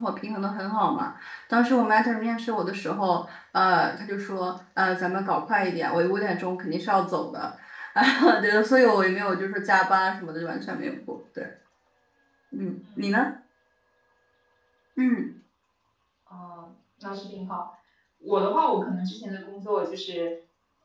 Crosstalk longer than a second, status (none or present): none